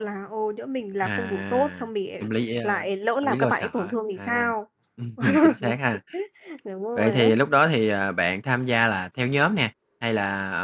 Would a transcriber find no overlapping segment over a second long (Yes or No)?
No